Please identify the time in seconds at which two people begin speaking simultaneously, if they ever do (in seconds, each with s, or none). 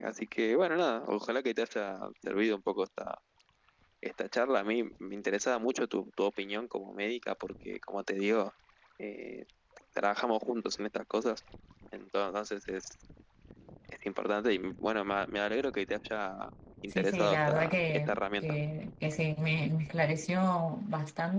16.9 s